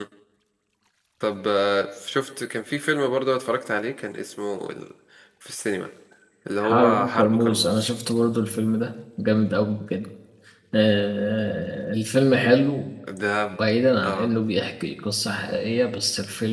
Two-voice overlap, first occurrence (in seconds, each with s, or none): 6.6 s